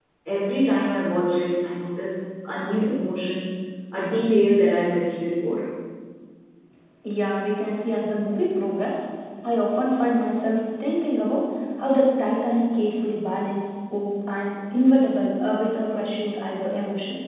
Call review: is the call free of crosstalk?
Yes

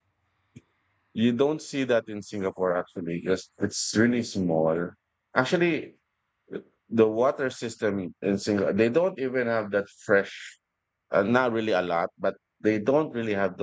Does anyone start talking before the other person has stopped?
No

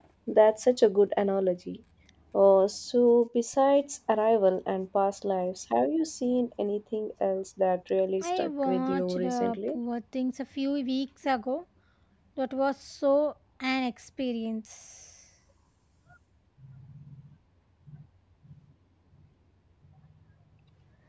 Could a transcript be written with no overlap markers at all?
No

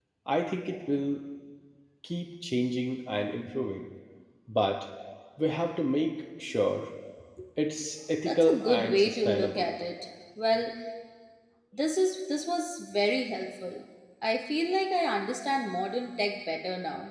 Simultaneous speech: Yes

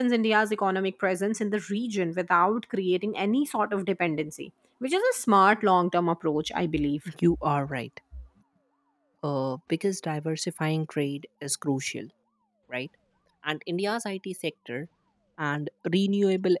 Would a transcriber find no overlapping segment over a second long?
Yes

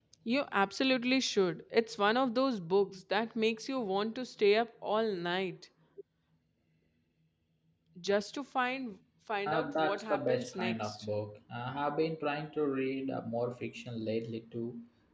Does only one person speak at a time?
No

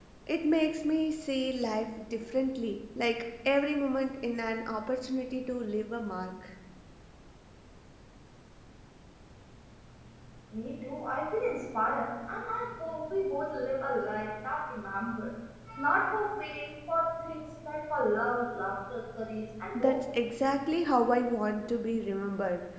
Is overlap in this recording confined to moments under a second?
Yes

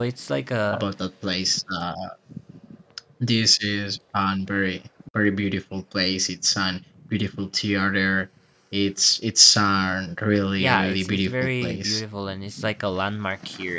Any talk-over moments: Yes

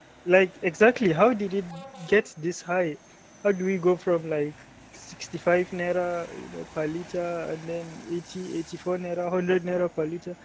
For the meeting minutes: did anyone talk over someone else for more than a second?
No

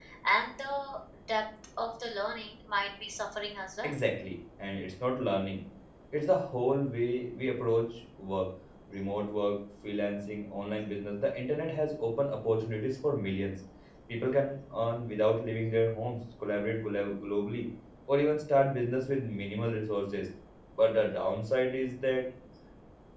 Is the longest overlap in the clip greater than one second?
No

